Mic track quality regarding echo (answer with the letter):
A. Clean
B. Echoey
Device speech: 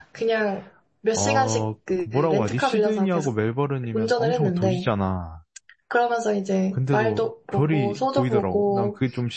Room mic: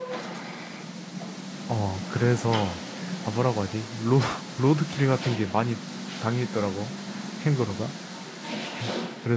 A